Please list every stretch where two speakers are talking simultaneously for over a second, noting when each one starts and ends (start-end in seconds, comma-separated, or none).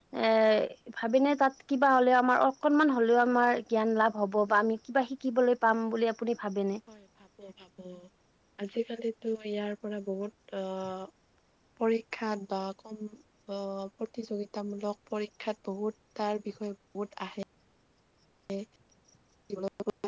none